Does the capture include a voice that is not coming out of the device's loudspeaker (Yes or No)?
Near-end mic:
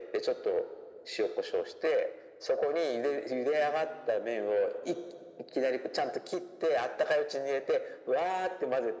No